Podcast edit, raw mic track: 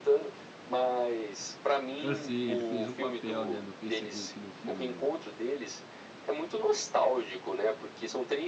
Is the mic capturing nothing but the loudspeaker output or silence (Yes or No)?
No